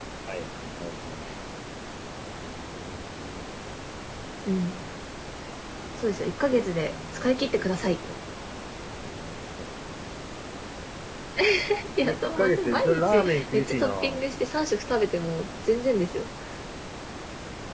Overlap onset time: 6.0 s

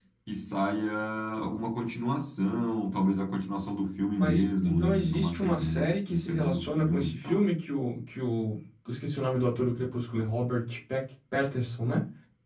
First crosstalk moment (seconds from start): 4.2 s

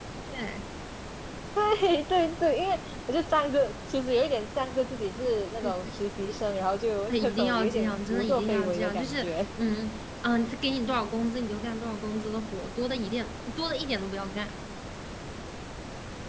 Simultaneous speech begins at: 7.1 s

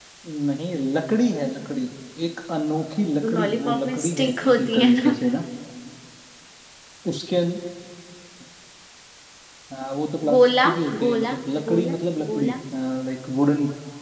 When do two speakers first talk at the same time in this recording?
3.3 s

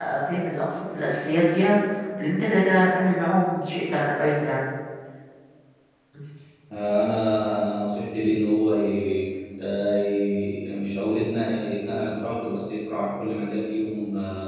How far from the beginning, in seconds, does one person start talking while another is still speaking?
none

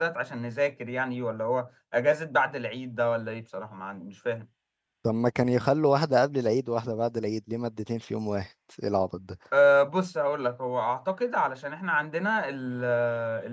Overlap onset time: none

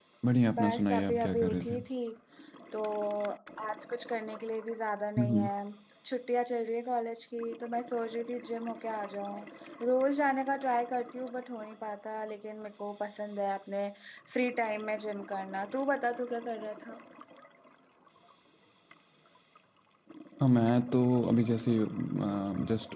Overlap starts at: 0.5 s

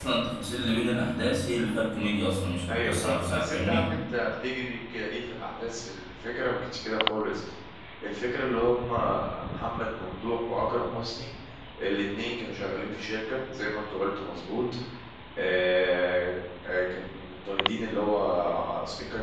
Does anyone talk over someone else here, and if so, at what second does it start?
2.7 s

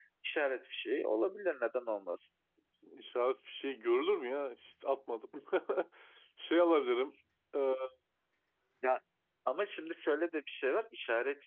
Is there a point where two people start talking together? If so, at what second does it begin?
none

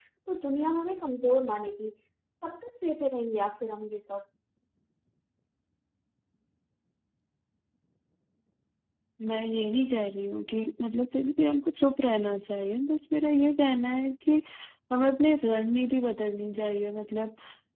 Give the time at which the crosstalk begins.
none

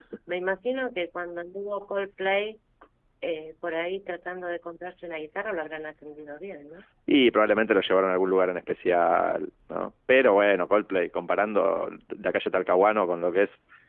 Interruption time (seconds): none

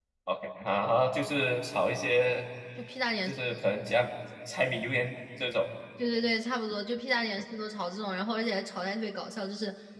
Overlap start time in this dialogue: none

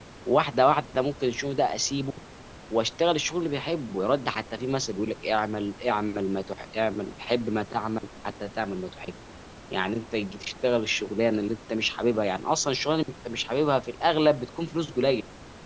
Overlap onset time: none

